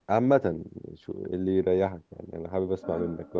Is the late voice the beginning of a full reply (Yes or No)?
Yes